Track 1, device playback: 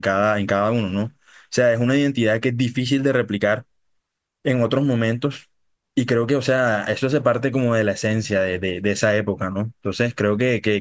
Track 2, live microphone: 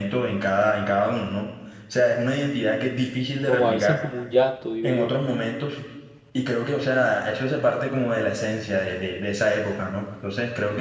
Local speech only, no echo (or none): como a veces como un llanto, digo yo.